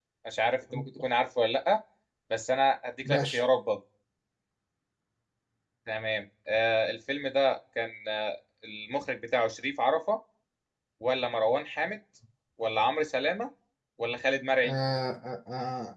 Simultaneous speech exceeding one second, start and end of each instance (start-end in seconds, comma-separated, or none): none